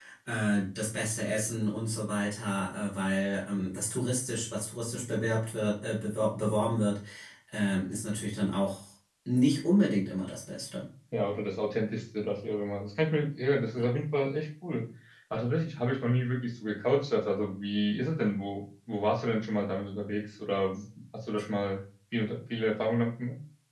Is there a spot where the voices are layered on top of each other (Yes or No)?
No